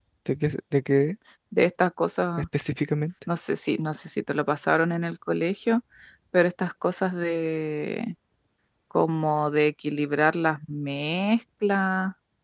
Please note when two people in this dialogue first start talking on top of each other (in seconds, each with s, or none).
none